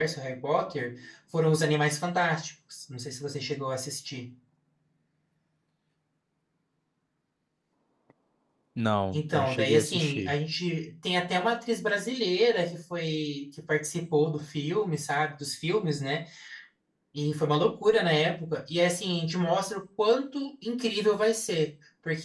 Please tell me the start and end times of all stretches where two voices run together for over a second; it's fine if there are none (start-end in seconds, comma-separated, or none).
9.1-10.4